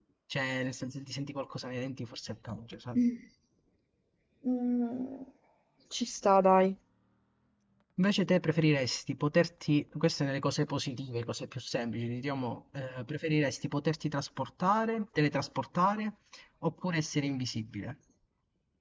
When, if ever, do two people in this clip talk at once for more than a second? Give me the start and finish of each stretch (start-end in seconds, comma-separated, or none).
none